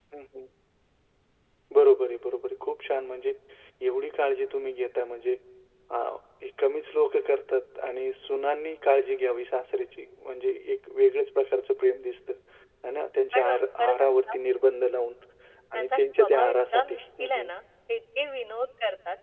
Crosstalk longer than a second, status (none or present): present